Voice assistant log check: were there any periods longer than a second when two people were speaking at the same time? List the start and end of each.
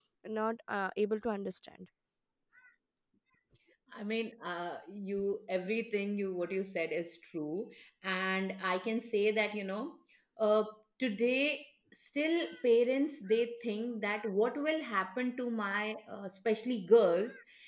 none

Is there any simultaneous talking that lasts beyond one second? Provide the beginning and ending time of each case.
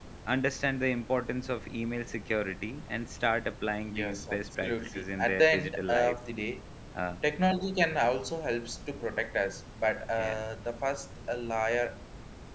3.8-6.2

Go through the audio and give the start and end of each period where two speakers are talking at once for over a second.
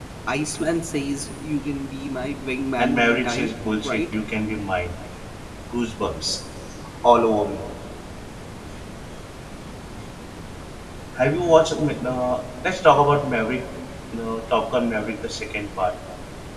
2.8-4.0

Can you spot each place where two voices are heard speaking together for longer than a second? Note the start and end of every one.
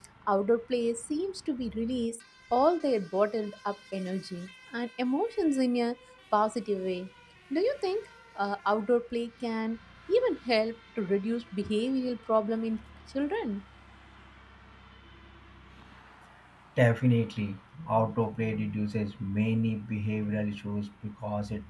none

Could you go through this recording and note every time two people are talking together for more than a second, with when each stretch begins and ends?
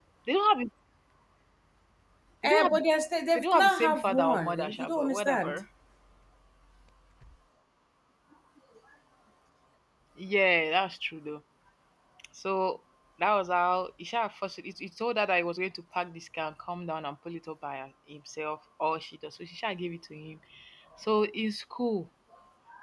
3.4-5.6

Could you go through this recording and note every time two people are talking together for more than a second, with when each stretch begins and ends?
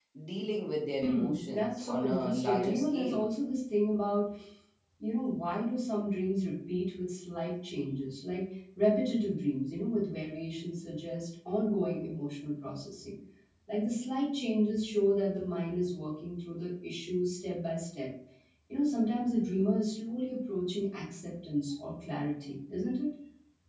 1.2-3.2

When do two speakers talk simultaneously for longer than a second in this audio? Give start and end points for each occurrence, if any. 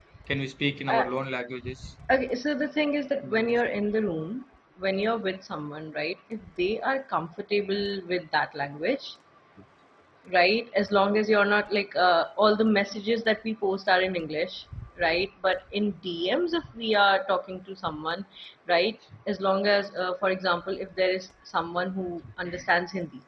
none

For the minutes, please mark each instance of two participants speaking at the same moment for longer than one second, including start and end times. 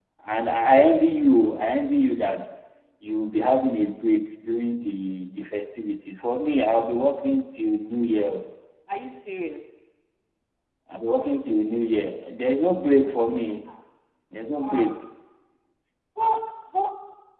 none

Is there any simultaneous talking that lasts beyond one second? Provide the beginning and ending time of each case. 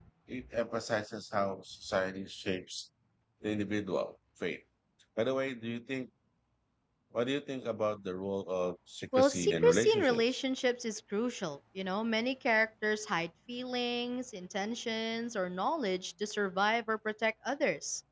9.2-10.4

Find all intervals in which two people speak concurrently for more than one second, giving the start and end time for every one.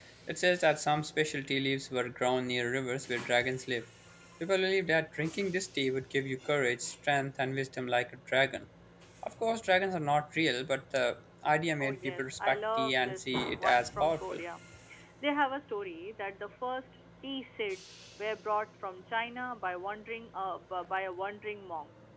11.8-14.4

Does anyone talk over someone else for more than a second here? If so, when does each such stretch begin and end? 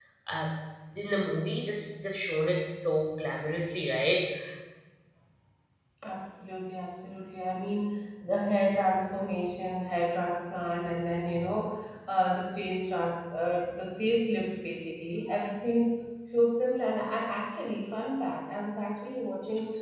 none

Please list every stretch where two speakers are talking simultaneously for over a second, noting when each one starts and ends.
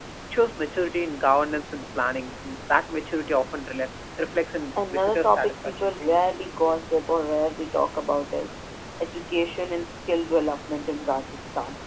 4.9-6.2

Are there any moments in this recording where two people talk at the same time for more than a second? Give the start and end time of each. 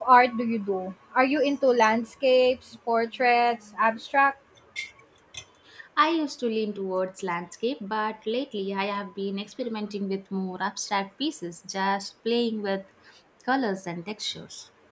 none

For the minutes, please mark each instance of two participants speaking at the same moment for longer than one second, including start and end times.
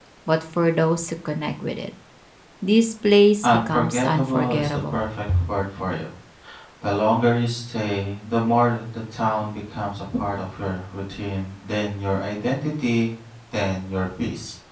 3.4-5.1

